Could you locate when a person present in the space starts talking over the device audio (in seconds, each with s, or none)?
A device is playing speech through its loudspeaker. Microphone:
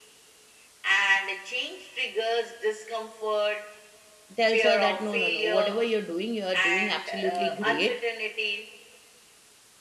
4.3 s